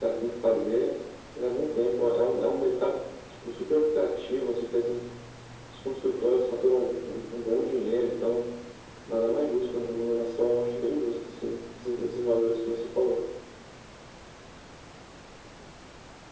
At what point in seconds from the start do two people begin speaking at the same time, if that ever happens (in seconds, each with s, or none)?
none